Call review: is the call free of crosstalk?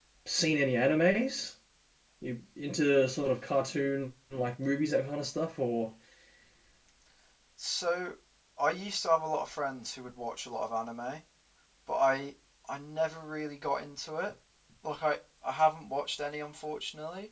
Yes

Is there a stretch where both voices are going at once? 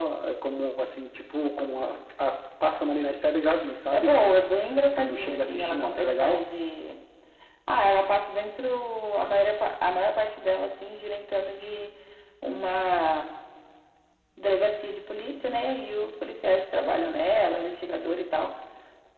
Yes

